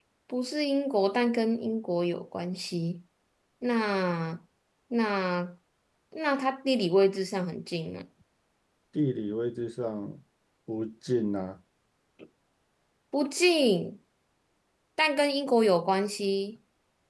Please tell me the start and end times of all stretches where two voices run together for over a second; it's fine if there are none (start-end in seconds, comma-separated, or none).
none